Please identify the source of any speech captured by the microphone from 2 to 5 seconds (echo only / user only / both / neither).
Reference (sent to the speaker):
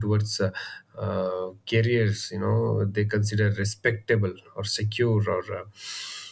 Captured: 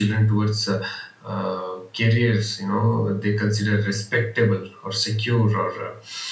echo only